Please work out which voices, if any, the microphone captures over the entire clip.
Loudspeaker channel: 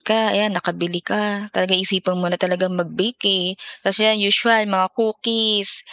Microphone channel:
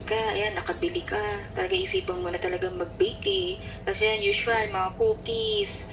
echo only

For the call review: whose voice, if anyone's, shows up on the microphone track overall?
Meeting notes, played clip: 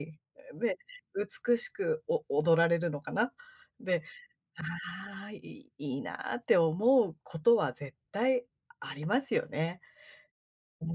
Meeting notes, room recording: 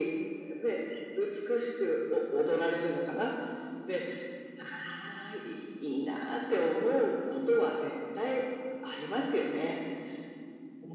echo only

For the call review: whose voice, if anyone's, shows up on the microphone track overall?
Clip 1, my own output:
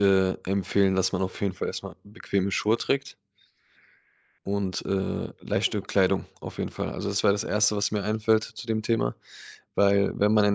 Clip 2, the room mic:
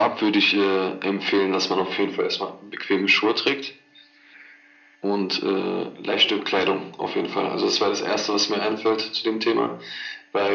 echo only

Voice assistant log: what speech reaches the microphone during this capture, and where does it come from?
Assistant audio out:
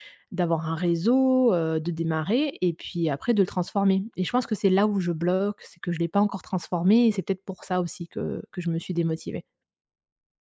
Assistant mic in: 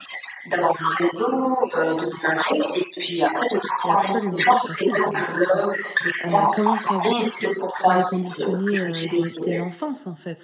both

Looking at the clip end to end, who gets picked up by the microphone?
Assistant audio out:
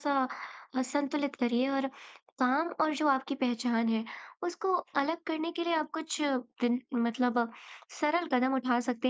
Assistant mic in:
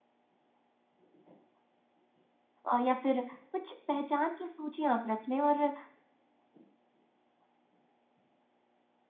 user only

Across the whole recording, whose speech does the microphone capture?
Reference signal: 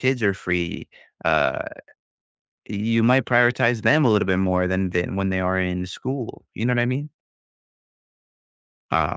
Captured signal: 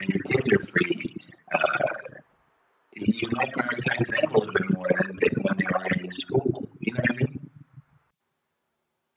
echo only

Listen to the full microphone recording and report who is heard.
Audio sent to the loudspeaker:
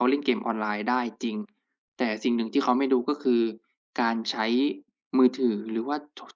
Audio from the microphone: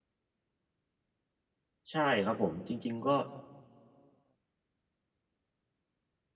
user only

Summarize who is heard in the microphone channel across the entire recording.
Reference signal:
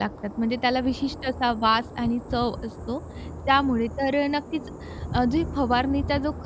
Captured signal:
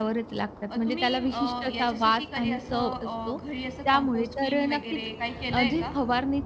both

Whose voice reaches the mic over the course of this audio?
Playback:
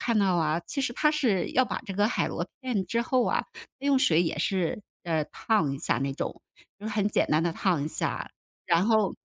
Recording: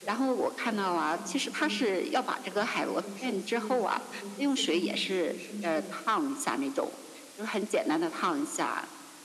both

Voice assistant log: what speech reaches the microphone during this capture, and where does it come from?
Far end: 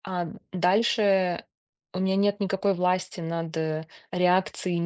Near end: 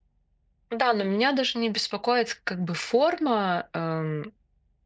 user only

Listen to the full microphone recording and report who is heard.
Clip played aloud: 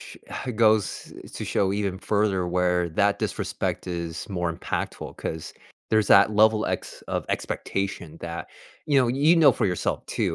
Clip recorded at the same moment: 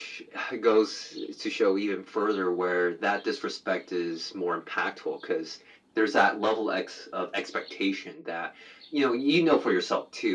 echo only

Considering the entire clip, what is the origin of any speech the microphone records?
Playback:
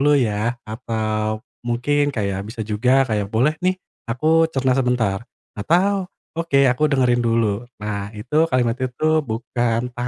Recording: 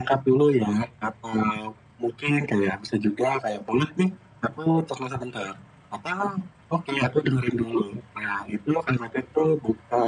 echo only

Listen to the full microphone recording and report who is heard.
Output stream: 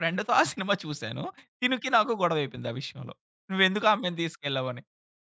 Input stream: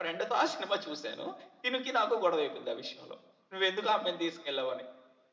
echo only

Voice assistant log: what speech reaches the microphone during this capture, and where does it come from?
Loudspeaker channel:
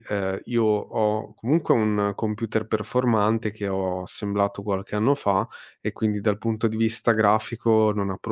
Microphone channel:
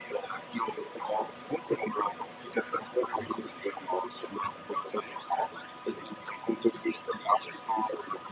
echo only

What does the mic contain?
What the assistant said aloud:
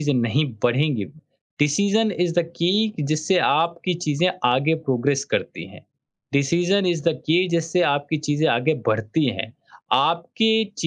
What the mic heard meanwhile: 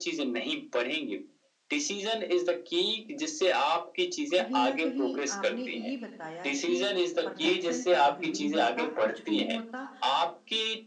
both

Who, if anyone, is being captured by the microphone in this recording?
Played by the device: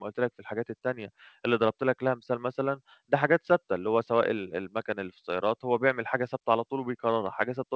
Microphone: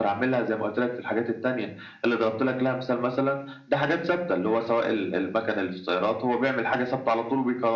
echo only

